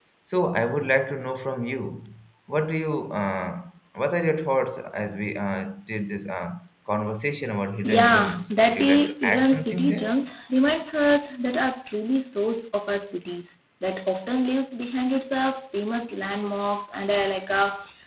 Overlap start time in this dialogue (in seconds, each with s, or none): 7.8 s